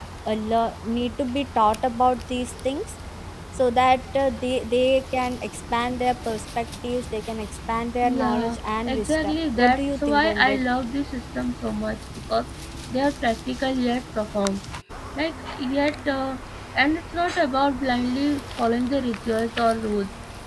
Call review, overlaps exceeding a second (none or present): present